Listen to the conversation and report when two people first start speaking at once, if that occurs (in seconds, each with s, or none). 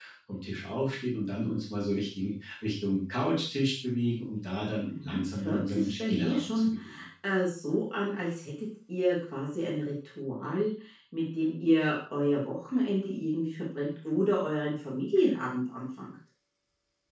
4.9 s